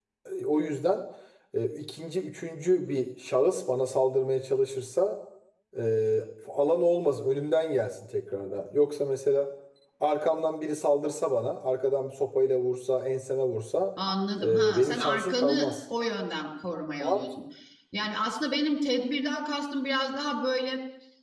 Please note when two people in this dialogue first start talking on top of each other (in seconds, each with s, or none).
14.4 s